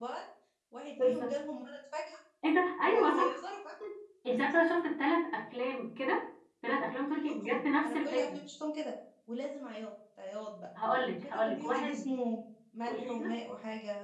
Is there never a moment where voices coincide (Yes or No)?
No